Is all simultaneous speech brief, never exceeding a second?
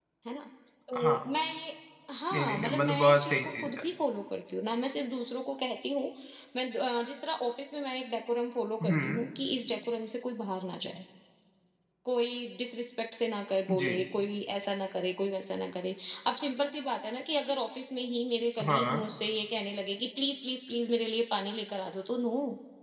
No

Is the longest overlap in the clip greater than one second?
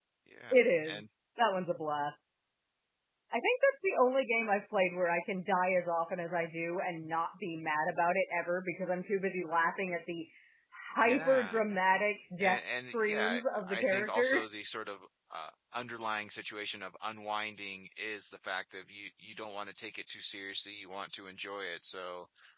Yes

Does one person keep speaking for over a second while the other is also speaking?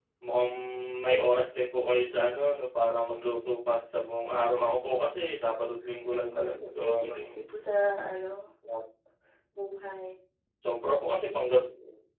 Yes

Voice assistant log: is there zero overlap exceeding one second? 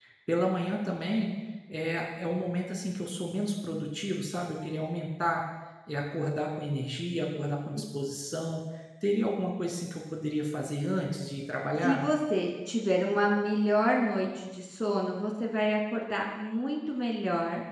Yes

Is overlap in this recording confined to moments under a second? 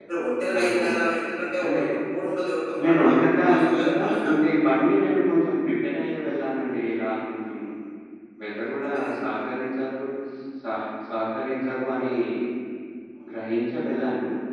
No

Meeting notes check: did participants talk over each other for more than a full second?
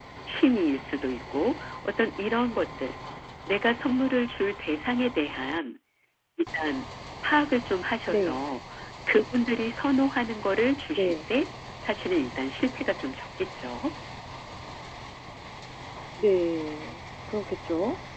No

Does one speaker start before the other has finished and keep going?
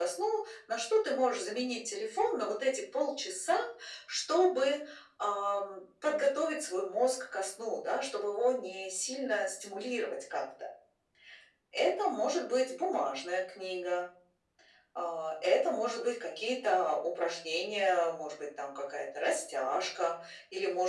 No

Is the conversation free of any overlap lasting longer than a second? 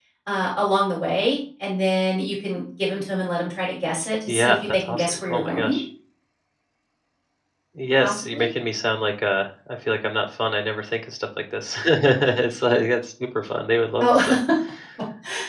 No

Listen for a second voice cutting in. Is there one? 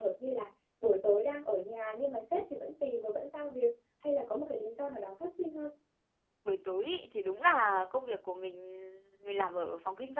No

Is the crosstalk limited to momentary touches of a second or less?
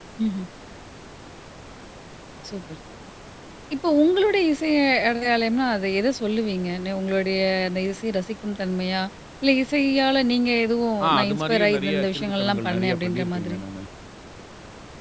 No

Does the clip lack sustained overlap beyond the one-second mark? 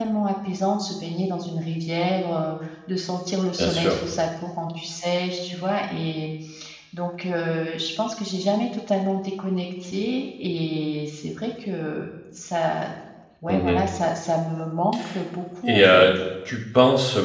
Yes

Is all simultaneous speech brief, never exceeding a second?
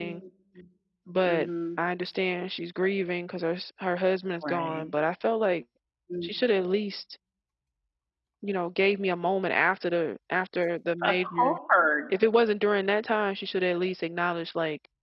Yes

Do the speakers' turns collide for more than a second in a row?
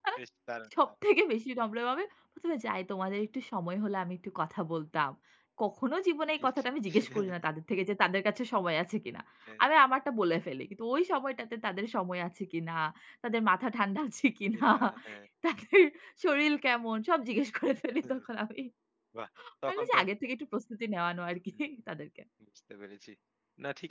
No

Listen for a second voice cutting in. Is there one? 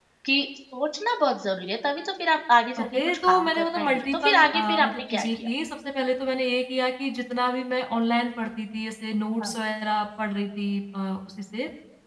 Yes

